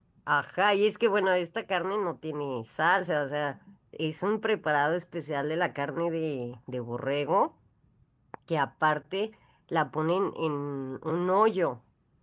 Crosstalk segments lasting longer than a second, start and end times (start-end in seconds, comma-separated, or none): none